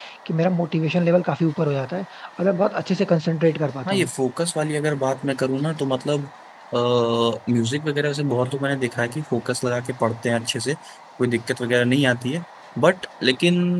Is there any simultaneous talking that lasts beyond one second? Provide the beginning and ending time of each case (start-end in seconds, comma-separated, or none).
none